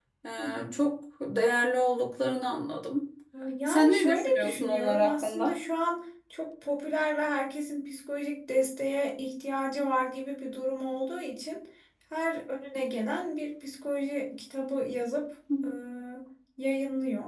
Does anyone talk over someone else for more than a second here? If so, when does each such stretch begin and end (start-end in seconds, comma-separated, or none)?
3.7-5.5